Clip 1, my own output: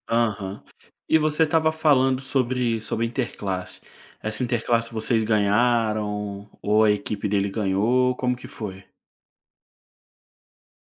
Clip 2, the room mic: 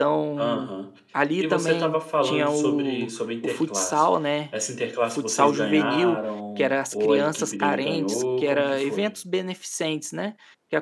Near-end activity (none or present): present